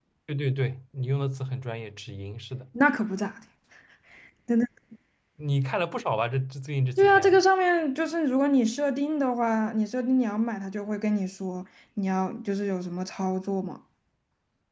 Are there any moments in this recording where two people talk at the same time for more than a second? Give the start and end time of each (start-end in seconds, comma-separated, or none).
none